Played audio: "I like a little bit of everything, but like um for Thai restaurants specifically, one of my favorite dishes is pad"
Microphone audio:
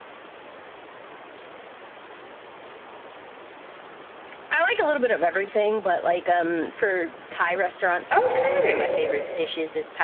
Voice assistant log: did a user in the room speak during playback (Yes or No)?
Yes